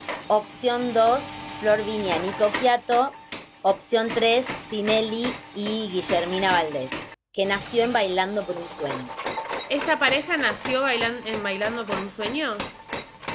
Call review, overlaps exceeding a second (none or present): none